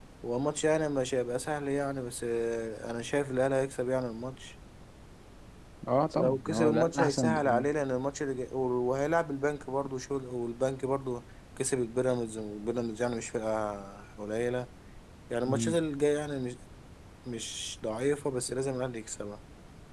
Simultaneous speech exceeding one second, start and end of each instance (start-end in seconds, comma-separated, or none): 6.1-7.6